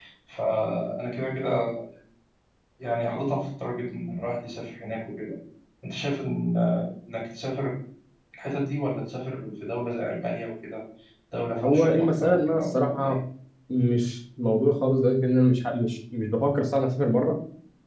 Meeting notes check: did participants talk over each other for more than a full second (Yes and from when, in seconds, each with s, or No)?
Yes, from 11.6 s